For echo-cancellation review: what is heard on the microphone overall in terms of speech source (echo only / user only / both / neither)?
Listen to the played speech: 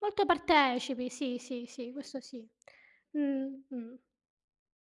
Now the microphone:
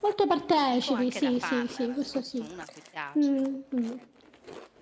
both